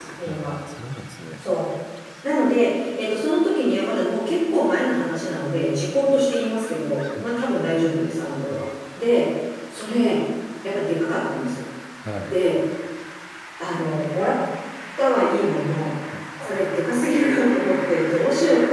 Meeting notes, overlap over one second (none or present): none